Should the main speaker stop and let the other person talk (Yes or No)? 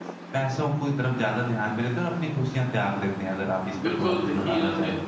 Yes